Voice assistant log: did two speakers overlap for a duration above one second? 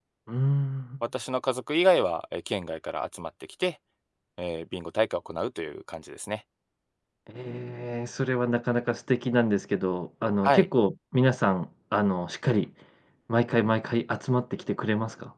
No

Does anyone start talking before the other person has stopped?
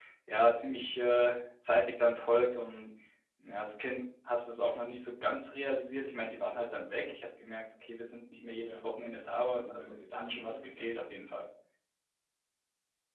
Yes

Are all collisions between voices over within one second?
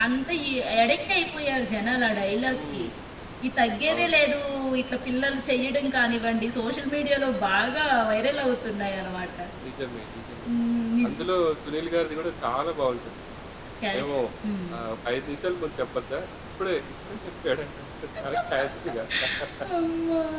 Yes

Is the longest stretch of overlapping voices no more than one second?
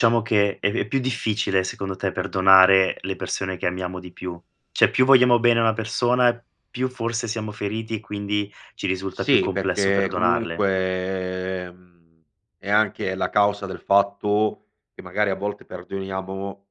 No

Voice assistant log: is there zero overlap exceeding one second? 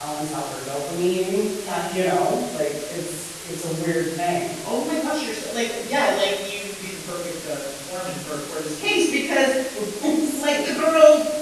Yes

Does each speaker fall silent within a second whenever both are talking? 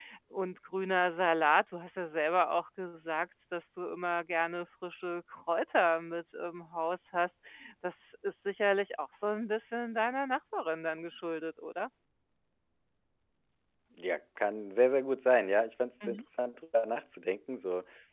Yes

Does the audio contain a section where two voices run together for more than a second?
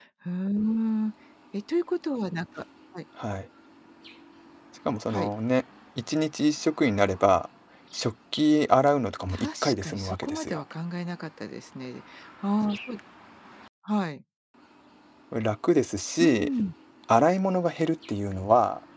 Yes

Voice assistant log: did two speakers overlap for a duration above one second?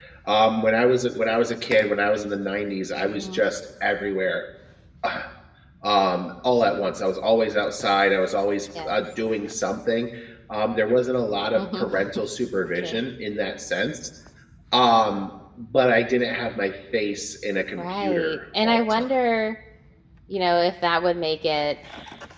Yes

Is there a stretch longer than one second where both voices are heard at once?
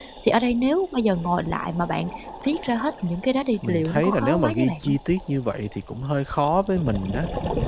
Yes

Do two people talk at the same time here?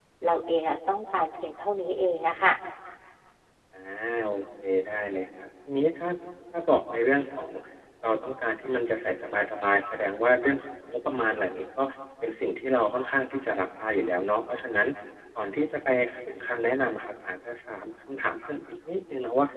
No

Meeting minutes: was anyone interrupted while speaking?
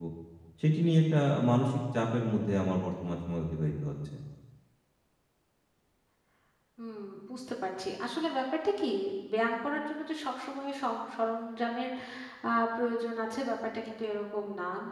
No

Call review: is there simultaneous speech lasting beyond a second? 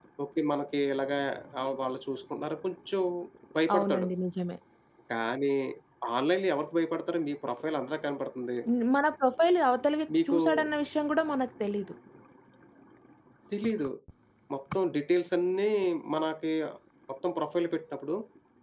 No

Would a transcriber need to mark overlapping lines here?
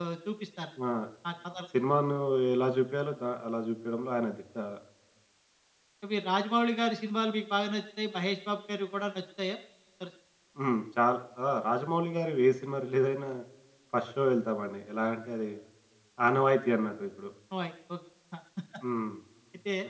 No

